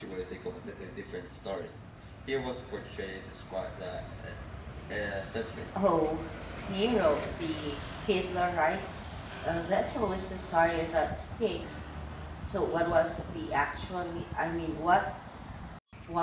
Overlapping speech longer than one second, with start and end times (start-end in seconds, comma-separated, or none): none